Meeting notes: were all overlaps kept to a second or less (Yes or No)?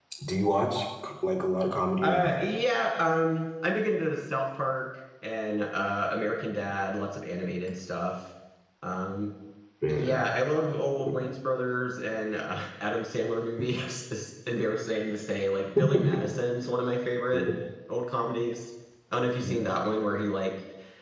Yes